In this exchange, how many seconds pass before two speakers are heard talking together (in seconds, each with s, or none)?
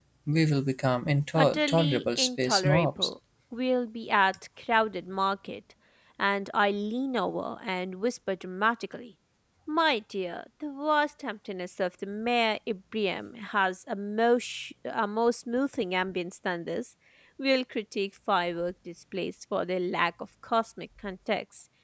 1.3 s